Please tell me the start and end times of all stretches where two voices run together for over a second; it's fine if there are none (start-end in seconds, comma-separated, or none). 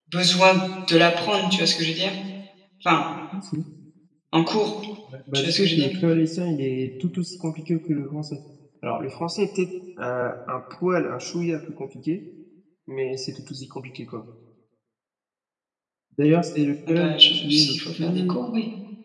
16.9-18.4